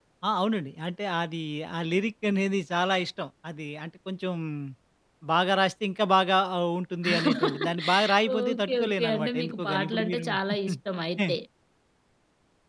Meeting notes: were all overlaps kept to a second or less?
No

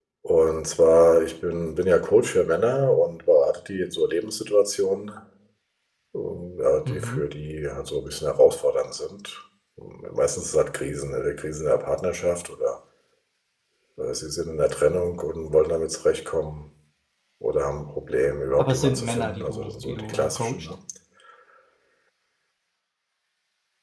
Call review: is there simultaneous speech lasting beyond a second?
Yes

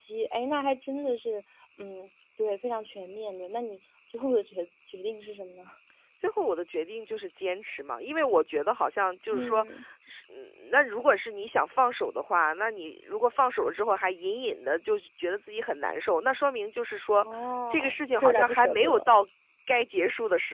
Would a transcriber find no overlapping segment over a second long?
No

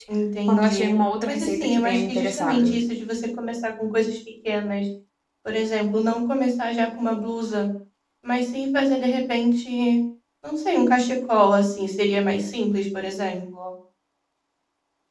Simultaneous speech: Yes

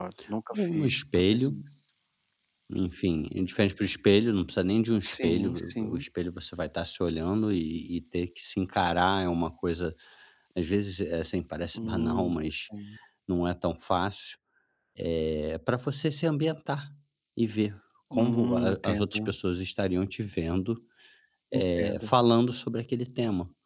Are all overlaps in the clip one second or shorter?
No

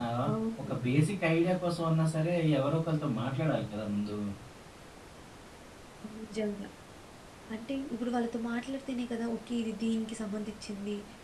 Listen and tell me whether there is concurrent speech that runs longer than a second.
No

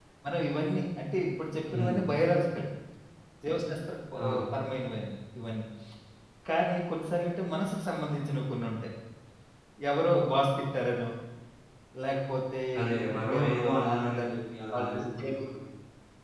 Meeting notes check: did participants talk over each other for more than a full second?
Yes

